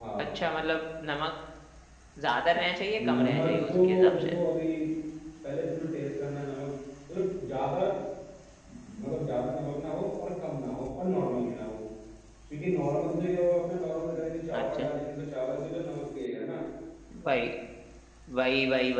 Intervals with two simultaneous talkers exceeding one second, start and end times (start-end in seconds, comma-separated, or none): 3.0-4.3